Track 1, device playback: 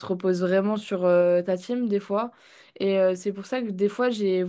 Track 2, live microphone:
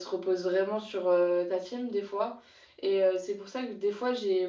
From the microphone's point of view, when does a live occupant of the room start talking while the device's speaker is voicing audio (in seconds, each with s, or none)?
none